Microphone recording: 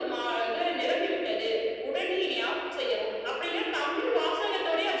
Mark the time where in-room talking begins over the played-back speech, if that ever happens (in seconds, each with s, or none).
none